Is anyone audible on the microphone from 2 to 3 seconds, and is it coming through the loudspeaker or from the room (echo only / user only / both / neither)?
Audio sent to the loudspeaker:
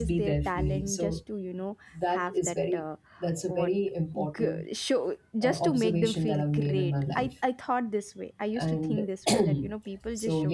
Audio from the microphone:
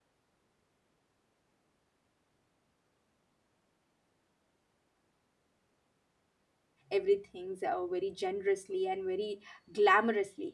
neither